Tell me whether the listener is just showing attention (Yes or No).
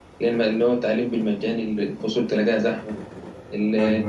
Yes